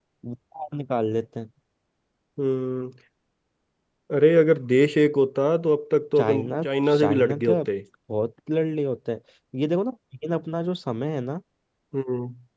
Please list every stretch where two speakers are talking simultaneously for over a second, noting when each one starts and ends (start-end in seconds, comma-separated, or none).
6.2-7.6